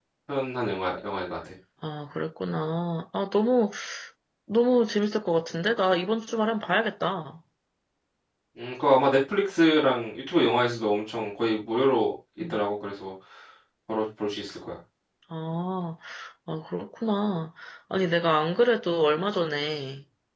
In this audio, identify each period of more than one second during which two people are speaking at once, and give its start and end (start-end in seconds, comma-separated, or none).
none